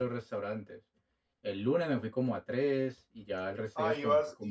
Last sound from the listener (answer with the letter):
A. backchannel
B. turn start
B